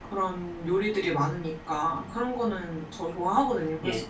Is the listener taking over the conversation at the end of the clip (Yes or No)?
No